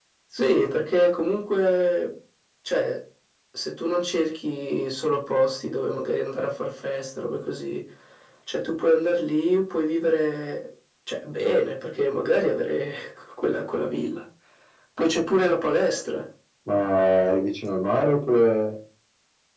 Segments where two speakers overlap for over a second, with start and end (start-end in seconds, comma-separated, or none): none